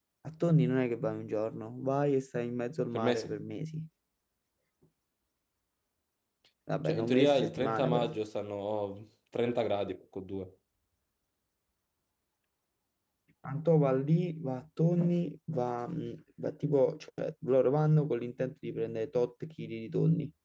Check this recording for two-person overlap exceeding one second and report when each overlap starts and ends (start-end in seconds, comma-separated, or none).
6.8-8.1